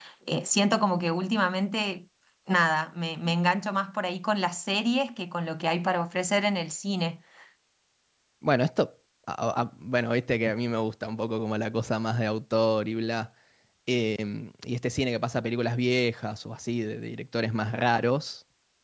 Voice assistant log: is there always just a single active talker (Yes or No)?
Yes